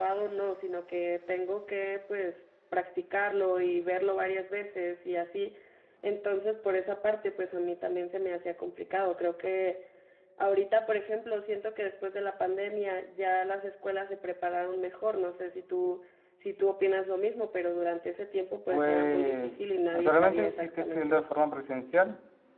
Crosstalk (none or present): present